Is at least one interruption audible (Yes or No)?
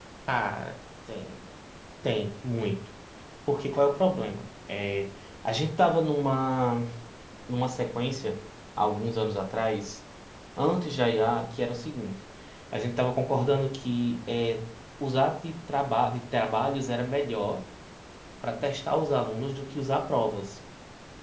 No